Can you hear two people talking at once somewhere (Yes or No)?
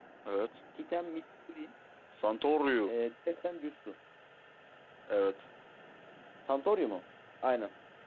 No